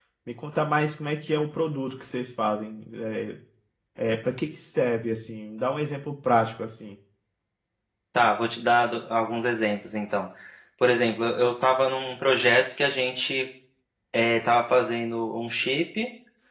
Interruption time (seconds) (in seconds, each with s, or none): none